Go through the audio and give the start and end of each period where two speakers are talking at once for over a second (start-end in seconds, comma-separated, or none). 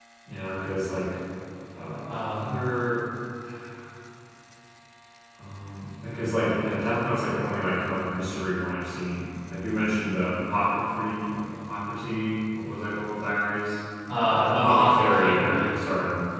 14.3-15.8